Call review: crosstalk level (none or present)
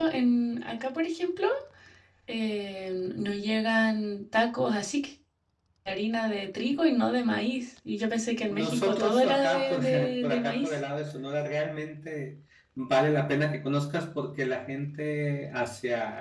present